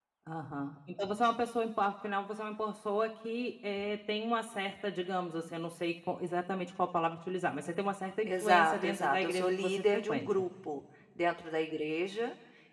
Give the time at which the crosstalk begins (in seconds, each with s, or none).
8.2 s